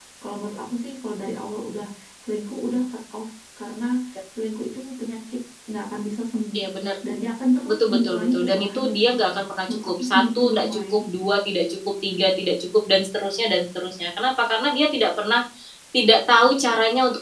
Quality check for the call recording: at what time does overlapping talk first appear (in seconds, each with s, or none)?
7.7 s